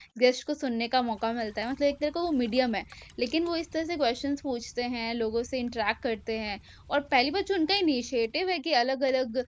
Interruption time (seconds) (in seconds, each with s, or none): none